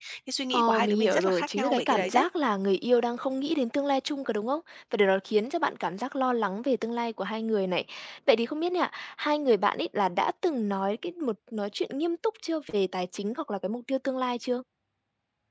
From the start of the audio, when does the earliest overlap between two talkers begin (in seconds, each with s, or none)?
0.5 s